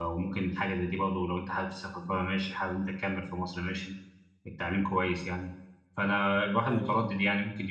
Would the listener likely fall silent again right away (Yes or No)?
Yes